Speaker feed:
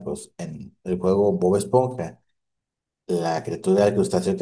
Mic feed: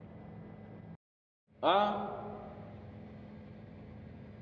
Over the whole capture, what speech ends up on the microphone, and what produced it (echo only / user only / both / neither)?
user only